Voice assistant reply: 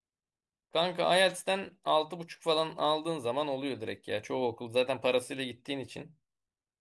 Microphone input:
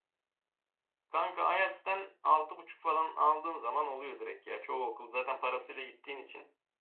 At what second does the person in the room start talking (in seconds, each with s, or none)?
none